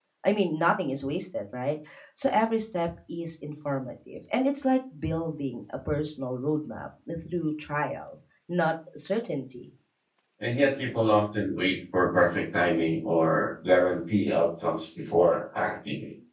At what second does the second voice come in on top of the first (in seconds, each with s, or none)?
none